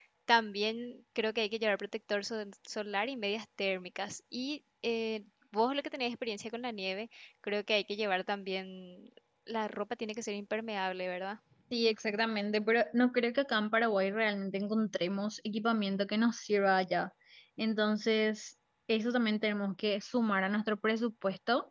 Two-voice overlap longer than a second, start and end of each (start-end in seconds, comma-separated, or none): none